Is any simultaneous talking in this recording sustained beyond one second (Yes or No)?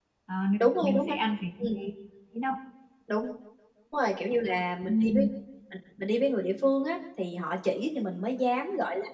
No